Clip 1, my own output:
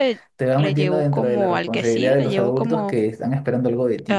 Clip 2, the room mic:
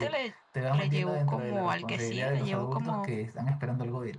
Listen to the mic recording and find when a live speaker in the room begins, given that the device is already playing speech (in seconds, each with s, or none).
none